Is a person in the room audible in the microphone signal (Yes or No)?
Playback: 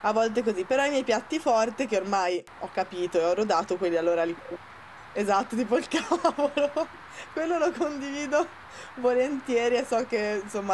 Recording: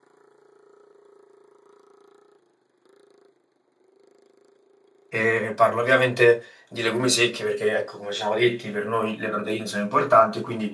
Yes